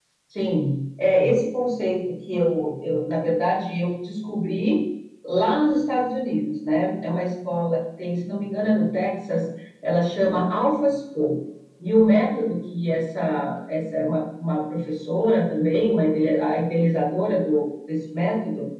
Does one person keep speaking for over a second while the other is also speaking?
No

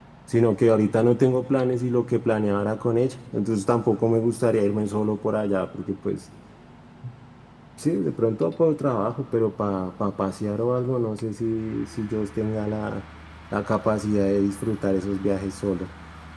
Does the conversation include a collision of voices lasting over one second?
No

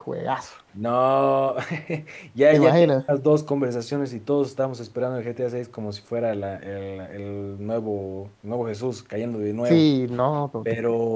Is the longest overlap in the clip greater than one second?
No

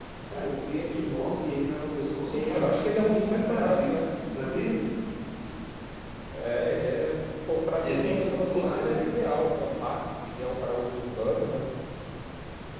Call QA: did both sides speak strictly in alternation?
No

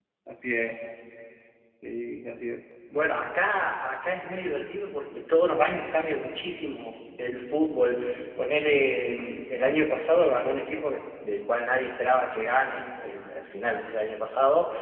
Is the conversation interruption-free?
Yes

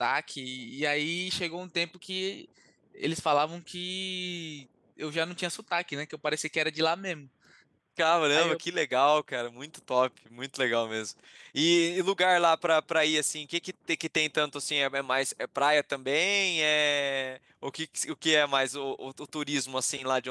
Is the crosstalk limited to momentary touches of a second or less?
Yes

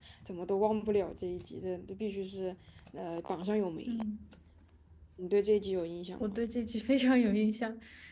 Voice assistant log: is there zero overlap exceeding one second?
Yes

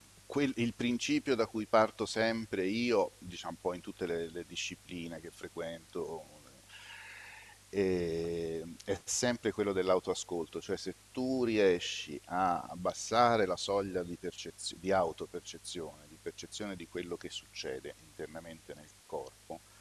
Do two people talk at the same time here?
No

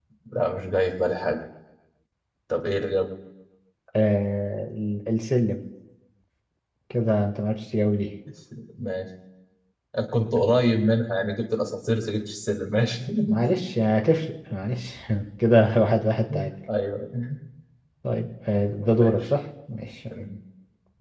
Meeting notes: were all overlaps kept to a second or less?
Yes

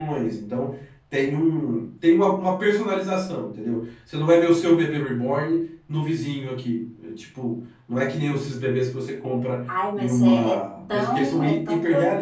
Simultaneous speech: Yes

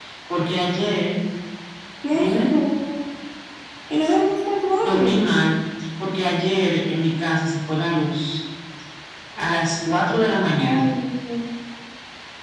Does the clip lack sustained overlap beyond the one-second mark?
Yes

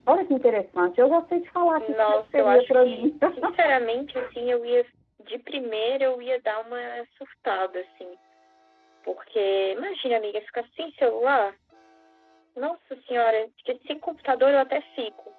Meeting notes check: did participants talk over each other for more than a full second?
Yes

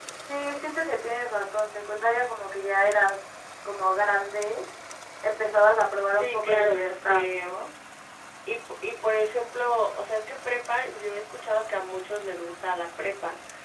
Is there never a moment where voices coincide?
No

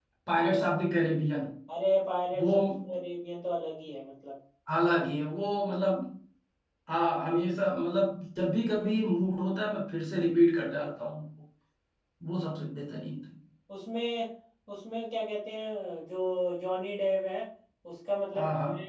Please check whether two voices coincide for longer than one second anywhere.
No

